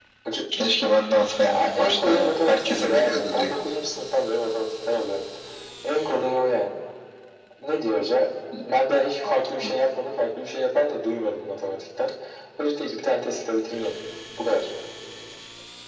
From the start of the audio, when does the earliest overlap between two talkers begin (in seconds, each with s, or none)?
1.4 s